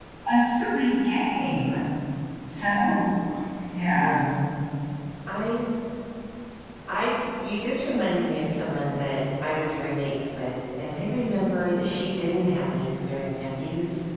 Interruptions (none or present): none